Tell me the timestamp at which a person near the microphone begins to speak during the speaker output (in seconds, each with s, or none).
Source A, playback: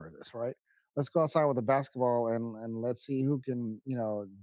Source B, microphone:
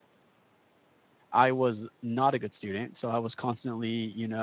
1.3 s